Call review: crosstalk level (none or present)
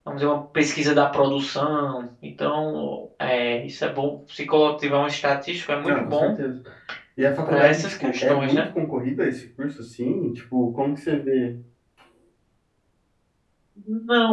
present